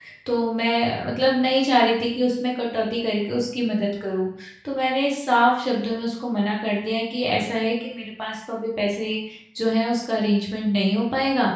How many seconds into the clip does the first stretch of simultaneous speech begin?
none

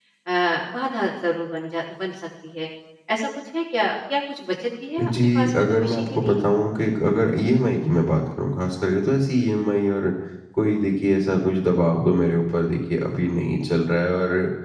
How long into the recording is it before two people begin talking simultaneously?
5 s

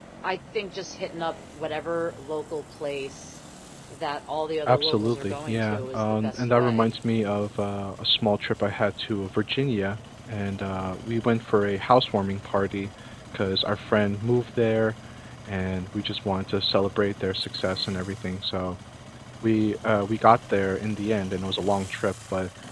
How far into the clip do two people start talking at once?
5 s

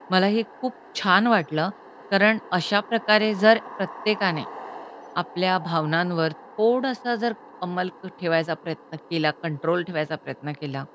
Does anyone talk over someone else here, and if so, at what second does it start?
none

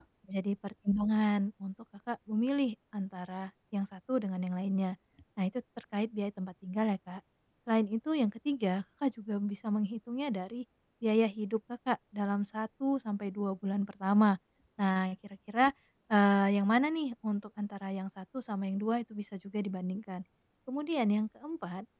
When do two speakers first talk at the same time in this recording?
none

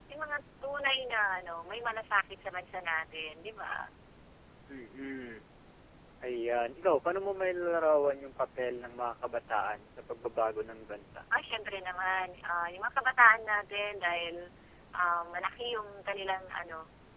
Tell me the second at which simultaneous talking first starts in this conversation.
none

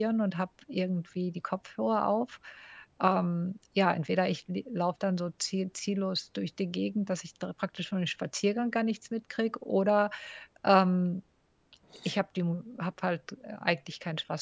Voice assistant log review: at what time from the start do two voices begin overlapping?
none

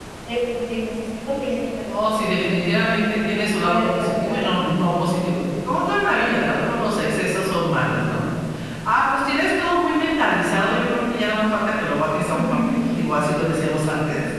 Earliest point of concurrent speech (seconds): 2 s

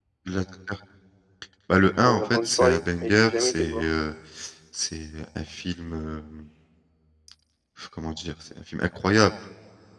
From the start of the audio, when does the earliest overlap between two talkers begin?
2 s

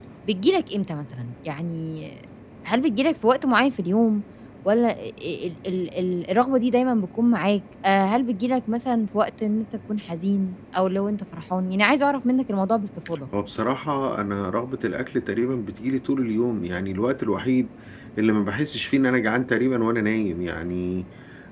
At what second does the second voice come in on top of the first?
none

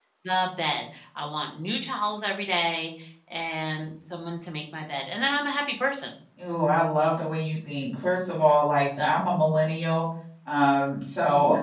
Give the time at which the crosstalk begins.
none

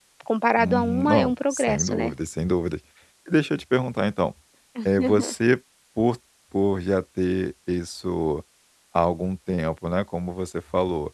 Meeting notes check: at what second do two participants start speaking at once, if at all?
1 s

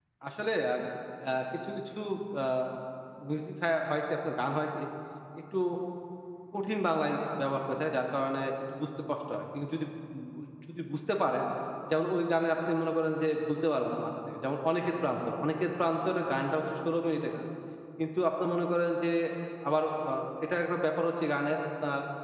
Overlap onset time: none

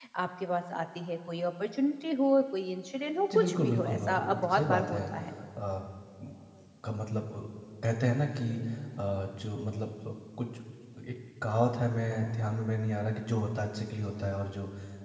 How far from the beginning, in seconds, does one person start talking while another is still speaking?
3 s

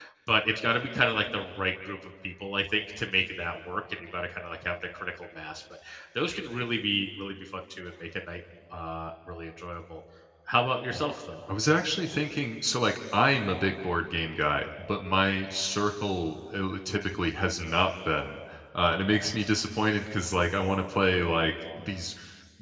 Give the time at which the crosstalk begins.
none

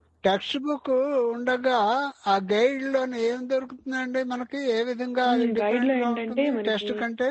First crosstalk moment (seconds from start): 5 s

